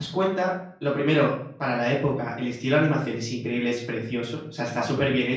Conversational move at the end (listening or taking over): listening